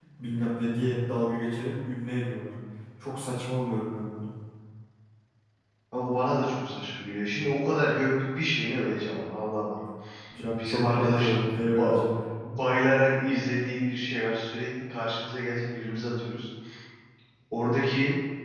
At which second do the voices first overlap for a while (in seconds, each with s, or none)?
10.6 s